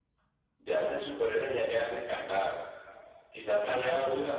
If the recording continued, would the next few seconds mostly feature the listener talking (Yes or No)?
No